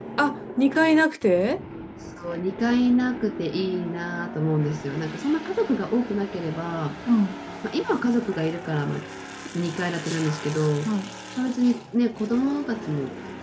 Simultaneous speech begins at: none

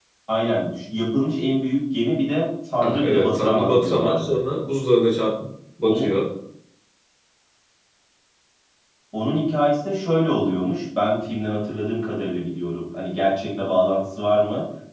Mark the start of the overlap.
2.8 s

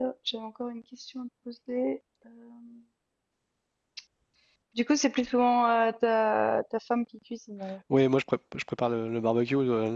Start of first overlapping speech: none

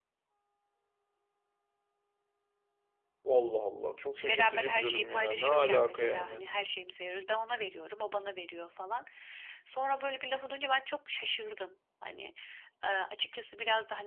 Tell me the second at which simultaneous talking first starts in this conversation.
4.3 s

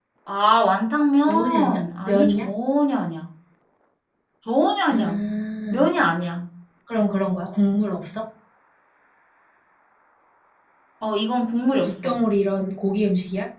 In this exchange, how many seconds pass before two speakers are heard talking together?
1.2 s

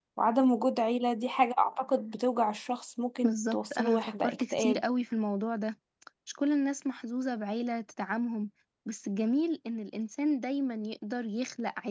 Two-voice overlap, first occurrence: 3.2 s

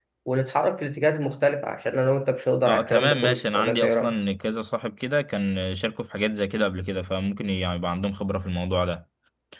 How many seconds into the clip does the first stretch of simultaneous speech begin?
2.6 s

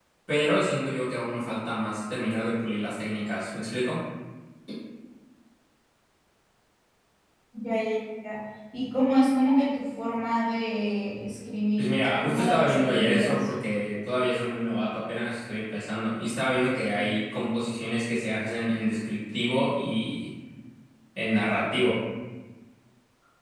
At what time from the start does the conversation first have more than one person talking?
11.8 s

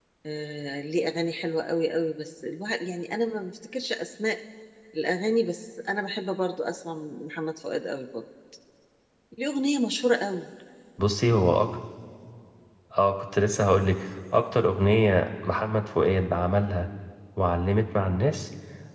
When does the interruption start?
none

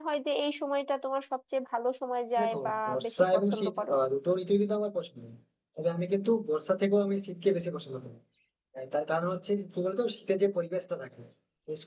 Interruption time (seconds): 2.4 s

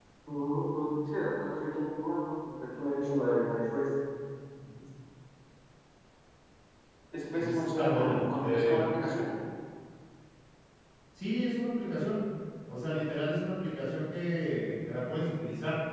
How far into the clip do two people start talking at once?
7.4 s

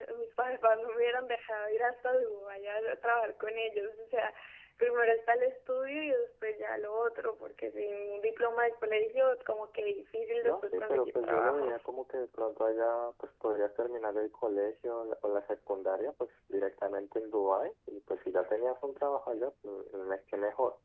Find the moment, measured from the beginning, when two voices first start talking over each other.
10.4 s

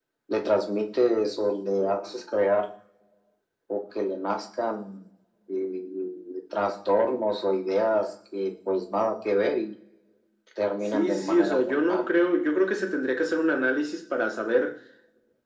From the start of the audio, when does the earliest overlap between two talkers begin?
10.8 s

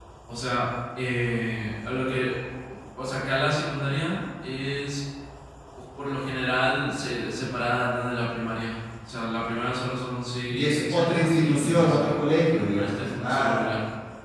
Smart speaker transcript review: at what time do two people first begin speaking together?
10.5 s

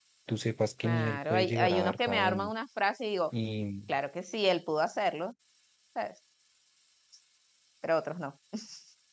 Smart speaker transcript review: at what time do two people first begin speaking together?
0.8 s

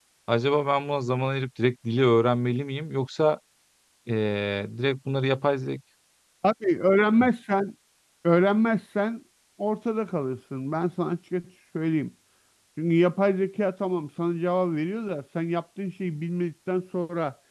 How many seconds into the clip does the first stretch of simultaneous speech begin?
none

